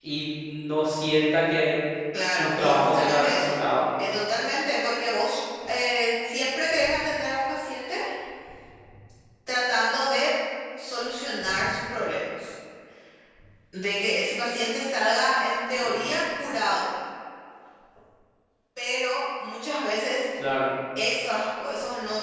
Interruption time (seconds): 2.2 s

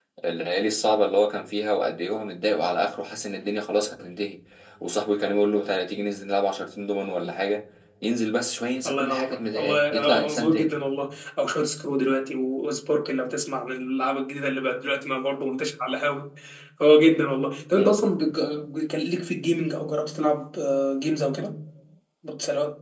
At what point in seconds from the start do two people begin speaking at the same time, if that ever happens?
8.9 s

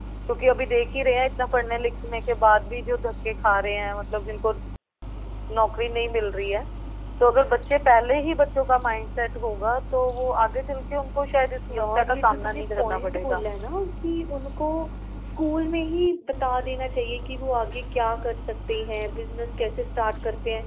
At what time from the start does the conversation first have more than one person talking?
11.7 s

